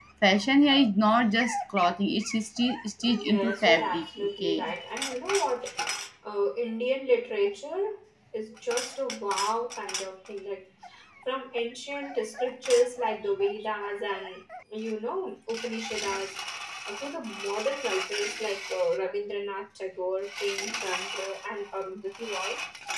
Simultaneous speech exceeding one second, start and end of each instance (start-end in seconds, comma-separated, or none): 3.0-4.6